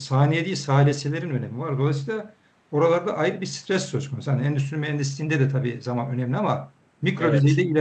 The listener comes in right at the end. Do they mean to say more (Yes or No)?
No